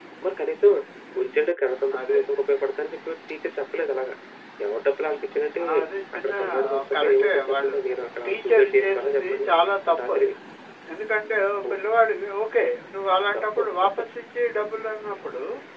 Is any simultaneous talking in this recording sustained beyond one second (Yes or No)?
Yes